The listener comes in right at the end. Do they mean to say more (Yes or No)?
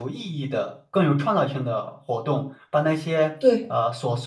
No